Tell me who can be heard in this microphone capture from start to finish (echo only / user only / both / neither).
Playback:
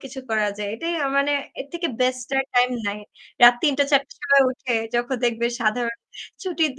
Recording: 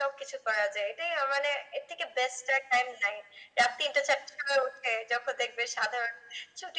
echo only